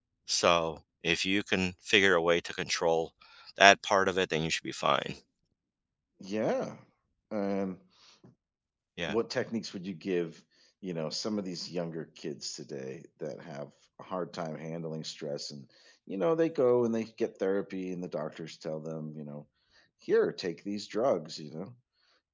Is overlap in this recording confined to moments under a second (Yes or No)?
Yes